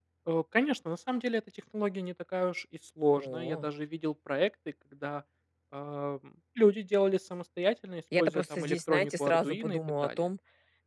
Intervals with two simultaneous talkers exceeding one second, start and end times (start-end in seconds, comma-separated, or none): 8.2-10.2